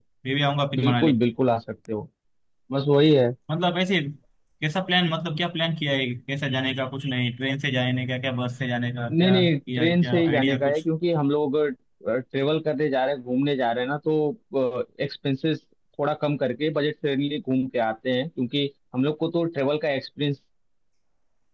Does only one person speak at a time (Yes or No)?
No